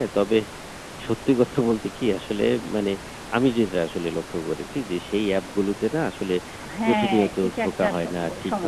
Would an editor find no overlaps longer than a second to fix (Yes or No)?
No